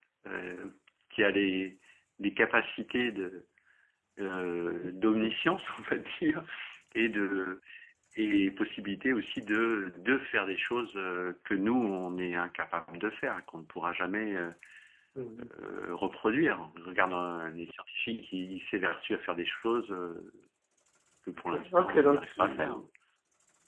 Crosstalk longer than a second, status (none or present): present